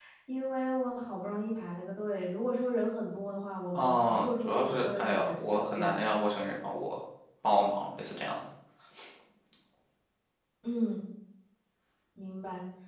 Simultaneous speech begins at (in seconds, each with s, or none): 3.8 s